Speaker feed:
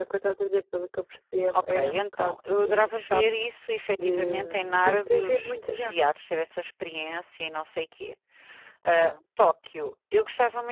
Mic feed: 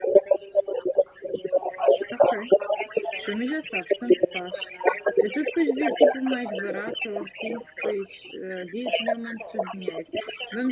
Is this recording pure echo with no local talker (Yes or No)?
No